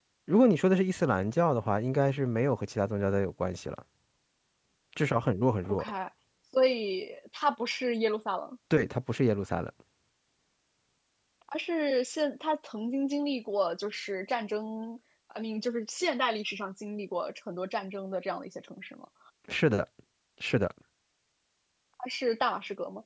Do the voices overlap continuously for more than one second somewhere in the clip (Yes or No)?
No